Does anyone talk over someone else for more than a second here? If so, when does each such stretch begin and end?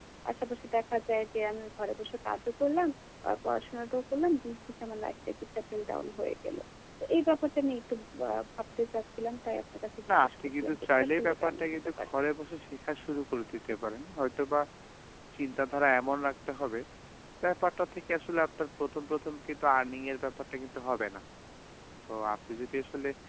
10.2-12.1

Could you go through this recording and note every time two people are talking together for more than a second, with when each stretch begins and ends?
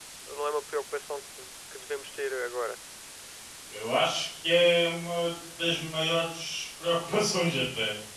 none

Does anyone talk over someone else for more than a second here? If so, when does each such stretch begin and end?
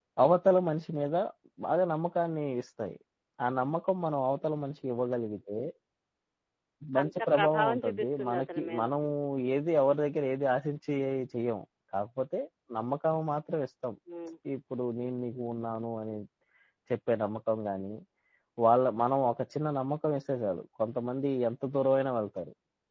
7.0-8.8

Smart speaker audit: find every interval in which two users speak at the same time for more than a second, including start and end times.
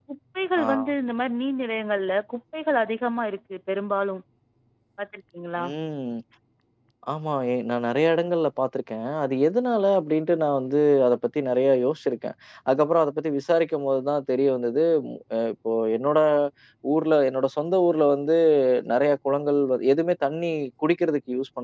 none

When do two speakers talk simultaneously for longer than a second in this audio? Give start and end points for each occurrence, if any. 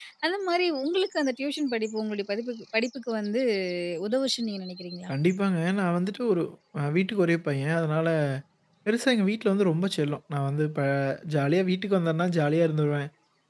none

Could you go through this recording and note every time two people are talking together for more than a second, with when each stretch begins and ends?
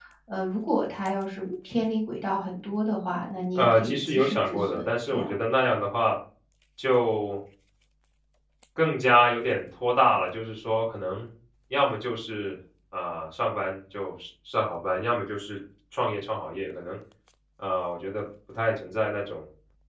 3.5-5.4

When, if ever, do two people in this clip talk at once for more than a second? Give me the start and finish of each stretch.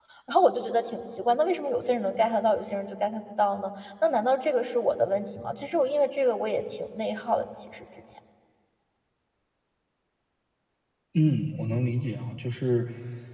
none

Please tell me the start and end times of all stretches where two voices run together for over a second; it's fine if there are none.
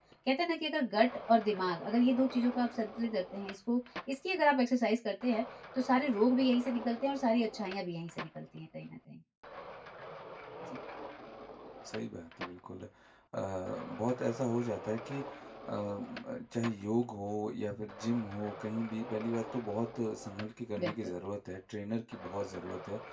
none

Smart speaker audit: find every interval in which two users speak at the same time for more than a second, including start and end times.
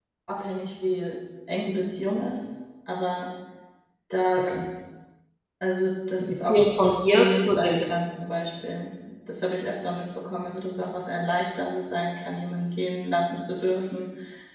6.2-7.9

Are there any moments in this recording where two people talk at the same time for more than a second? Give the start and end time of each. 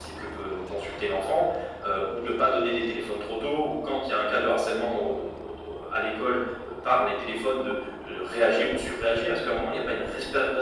none

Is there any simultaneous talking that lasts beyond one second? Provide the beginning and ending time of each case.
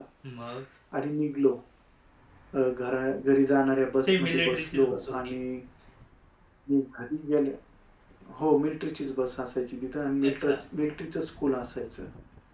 4.0-5.3

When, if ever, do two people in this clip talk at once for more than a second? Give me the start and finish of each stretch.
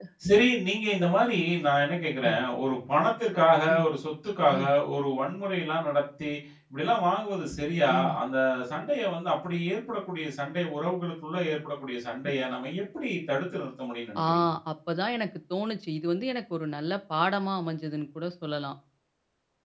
none

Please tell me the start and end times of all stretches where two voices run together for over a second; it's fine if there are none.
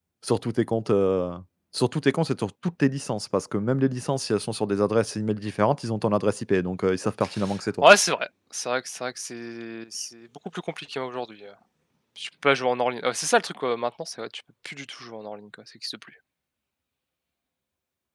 none

